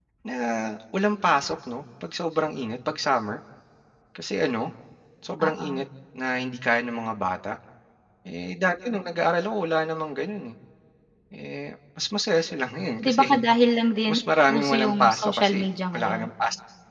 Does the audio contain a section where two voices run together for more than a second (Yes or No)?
Yes